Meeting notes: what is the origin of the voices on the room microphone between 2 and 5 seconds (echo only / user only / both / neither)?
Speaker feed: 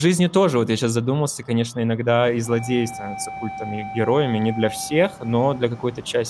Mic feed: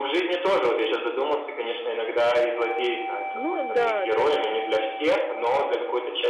both